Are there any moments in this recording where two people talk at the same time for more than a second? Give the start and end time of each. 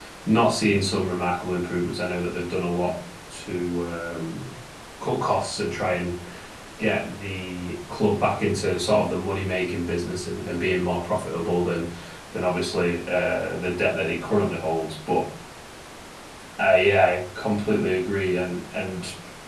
none

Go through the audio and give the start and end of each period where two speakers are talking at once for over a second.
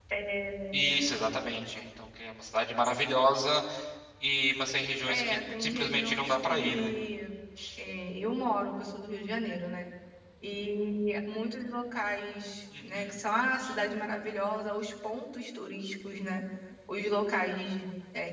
5.1-6.9

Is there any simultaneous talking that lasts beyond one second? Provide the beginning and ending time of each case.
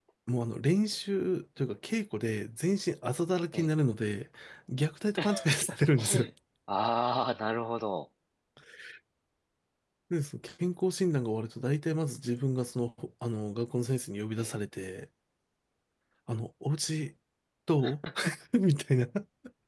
none

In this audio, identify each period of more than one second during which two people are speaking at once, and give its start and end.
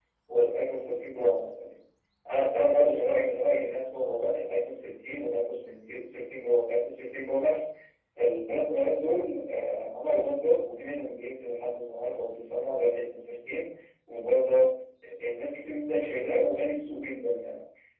none

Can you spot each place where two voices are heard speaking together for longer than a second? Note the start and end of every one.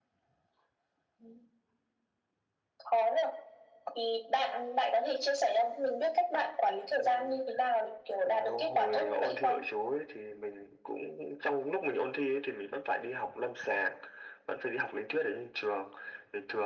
8.2-9.6

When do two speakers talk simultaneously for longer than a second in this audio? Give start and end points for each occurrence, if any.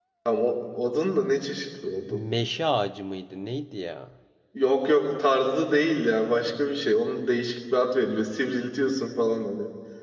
none

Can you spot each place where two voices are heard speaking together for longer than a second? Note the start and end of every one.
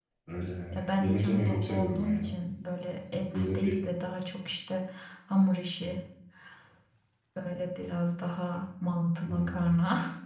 0.7-2.3

